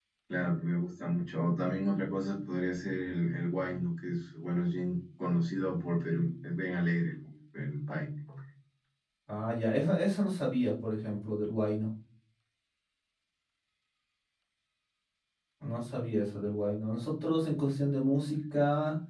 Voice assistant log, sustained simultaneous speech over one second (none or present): none